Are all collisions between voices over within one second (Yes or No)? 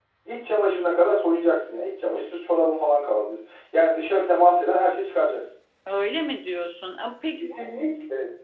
Yes